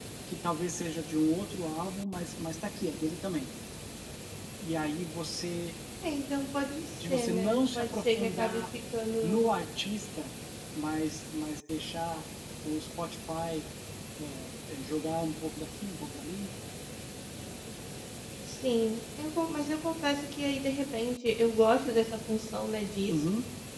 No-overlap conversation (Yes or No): No